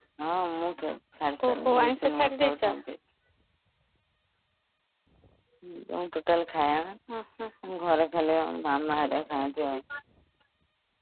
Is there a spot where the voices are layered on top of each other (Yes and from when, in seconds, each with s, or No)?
Yes, from 1.5 s